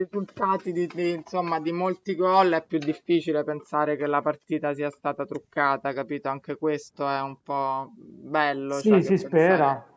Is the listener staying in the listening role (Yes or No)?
No